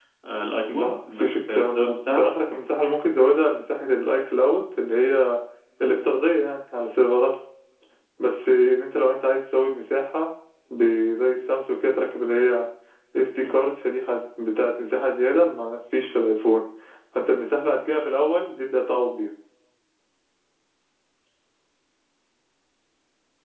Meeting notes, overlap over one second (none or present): present